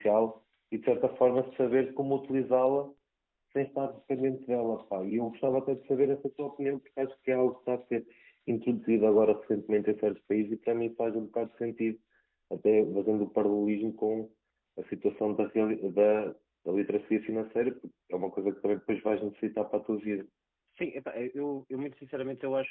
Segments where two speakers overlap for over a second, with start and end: none

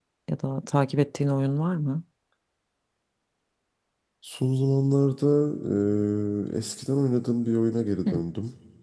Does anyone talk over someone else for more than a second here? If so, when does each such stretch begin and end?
none

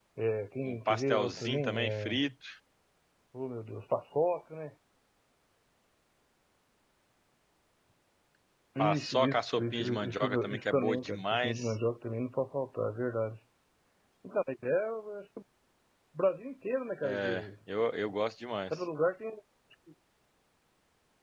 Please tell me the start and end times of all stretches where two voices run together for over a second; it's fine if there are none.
0.7-2.2, 8.8-11.8

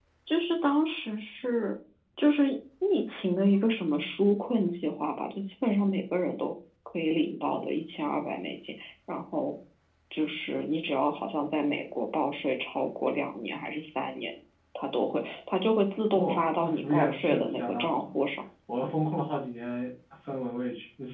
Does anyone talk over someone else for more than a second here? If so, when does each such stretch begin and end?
16.2-18.2

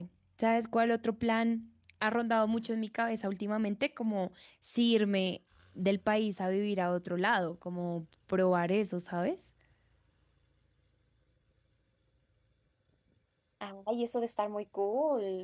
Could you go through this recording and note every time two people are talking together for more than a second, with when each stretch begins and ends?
none

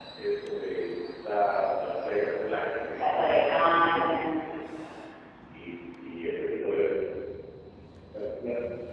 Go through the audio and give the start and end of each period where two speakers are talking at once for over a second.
3.0-4.3

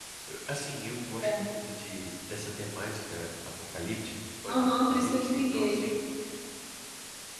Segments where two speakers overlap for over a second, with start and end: 4.5-5.9

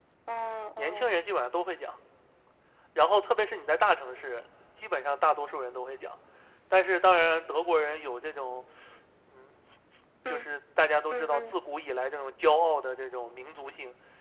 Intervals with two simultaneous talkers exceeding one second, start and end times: none

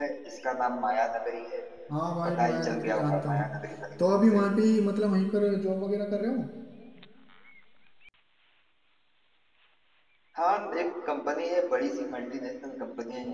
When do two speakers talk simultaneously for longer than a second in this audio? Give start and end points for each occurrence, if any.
2.2-3.6

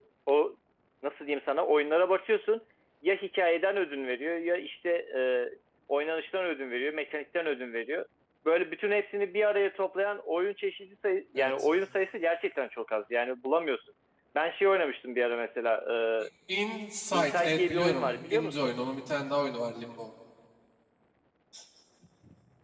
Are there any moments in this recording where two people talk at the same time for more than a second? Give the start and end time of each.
17.4-18.7

